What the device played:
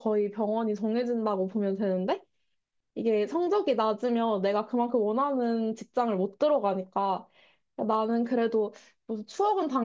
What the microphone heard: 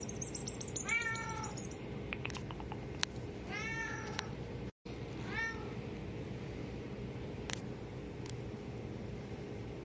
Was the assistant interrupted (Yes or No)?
No